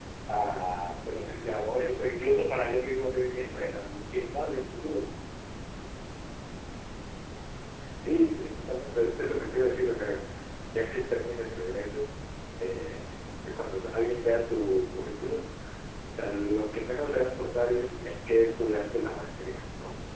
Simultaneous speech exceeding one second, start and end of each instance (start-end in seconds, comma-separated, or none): none